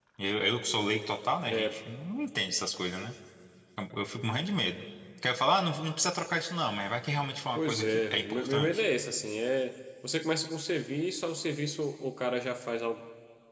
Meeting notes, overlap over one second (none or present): present